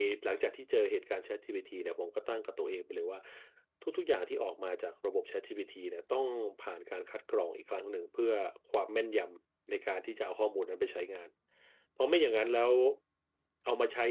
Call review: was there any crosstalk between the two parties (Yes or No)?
No